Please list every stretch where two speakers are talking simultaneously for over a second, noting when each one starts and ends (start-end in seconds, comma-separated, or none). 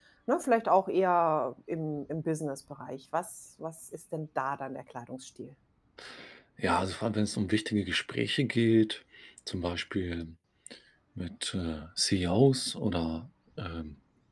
none